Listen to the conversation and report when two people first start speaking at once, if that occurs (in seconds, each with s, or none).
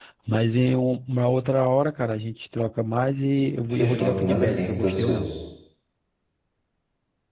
3.6 s